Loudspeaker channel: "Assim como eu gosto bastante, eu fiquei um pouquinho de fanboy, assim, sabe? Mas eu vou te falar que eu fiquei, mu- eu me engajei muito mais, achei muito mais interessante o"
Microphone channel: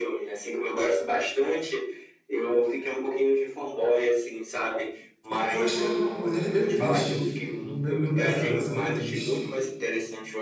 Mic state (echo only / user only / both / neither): both